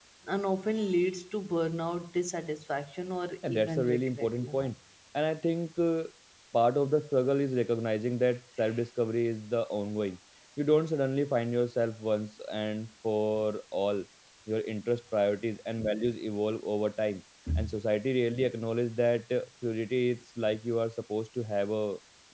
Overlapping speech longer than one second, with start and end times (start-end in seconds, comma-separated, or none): 3.5-4.7